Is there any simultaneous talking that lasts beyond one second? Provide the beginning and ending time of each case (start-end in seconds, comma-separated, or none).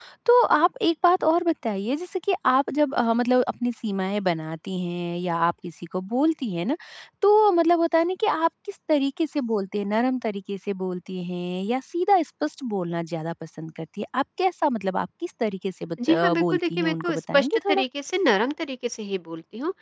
16.1-17.8